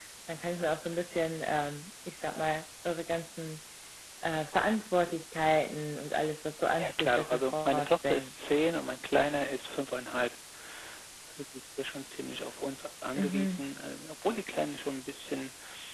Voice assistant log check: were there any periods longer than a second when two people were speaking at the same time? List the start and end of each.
6.8-8.3

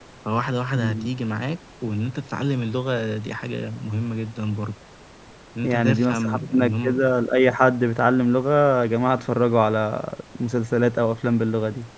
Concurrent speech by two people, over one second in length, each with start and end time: 5.6-7.0

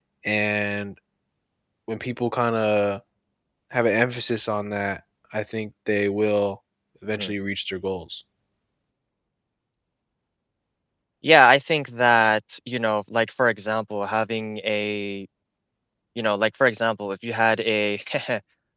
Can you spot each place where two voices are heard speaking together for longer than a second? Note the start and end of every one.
none

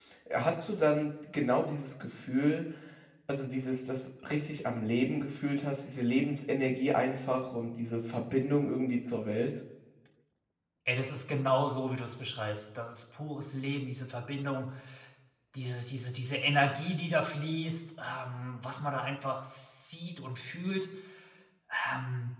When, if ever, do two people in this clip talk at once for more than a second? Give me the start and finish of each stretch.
none

